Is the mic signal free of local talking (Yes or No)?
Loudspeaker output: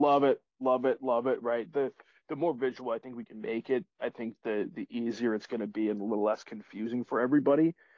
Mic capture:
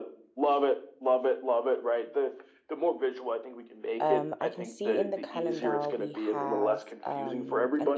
No